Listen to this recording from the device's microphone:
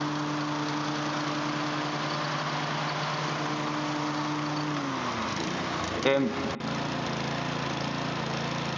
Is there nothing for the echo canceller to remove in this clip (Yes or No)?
Yes